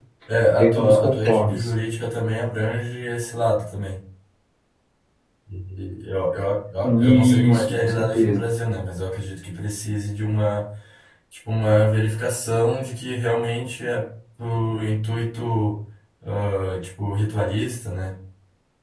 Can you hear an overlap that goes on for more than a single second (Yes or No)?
Yes